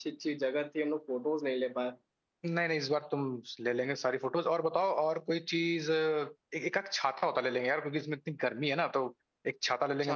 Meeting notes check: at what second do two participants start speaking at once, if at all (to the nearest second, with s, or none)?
none